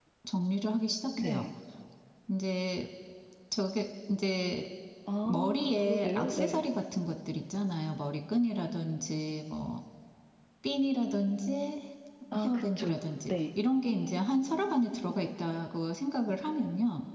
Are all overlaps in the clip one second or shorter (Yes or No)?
No